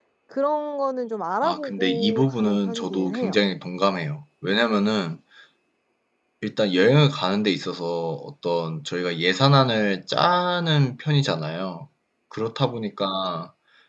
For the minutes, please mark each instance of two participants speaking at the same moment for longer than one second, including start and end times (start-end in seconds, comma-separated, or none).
1.4-3.4